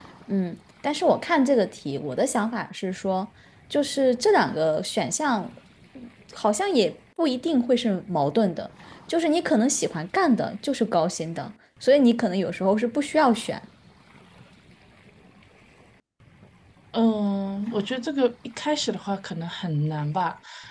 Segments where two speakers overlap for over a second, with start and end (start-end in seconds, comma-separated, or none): none